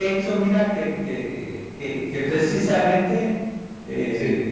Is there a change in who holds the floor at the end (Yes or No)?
No